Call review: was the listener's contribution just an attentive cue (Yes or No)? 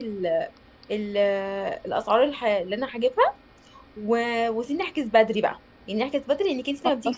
Yes